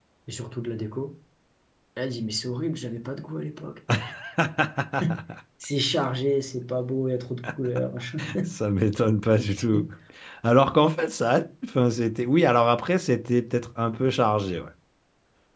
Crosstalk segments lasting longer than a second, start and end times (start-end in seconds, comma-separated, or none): none